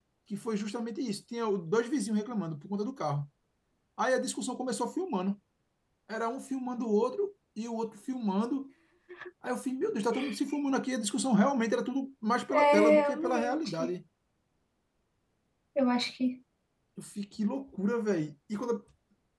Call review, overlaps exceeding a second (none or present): present